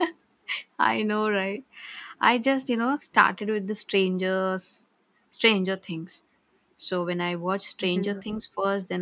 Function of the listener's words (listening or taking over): listening